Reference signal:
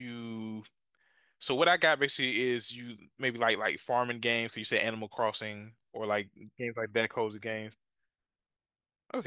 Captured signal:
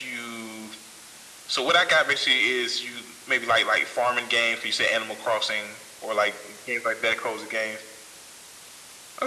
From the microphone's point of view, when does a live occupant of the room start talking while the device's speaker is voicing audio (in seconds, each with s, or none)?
none